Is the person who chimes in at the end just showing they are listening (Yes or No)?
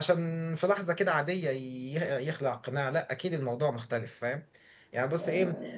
Yes